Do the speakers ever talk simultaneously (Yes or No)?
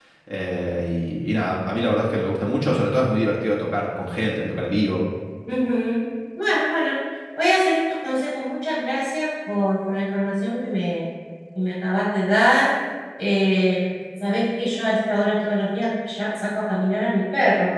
No